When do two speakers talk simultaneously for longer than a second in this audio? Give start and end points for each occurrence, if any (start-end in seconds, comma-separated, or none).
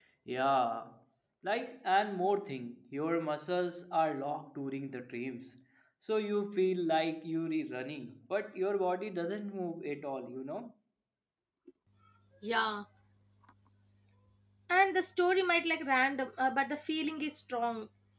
none